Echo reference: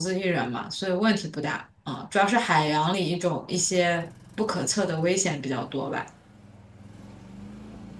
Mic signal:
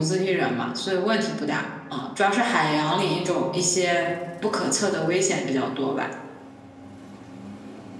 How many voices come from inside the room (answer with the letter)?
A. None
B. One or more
A